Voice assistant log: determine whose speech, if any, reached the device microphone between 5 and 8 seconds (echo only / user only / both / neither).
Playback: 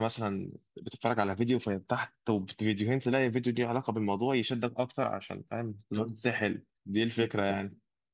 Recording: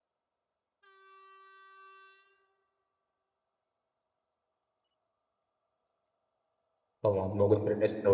user only